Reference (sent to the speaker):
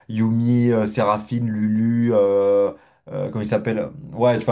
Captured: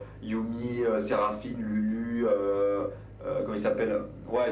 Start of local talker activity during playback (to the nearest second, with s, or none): none